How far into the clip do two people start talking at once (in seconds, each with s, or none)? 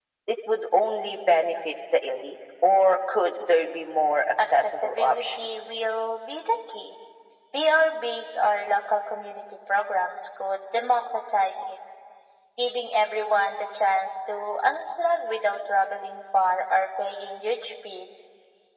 4.4 s